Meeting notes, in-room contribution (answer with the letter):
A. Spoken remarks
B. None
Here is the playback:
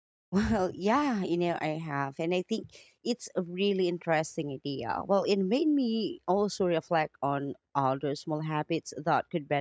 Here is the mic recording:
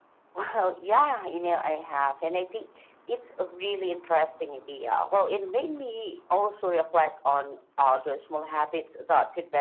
B